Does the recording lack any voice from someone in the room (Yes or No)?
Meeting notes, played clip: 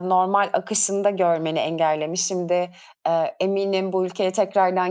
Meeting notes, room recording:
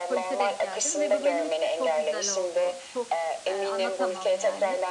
No